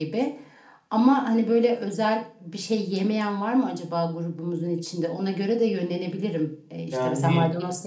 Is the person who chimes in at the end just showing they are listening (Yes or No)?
Yes